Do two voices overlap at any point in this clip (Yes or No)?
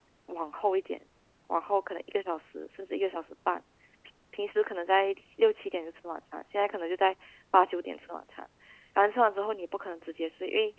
No